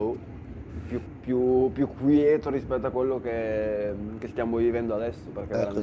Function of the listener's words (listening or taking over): taking over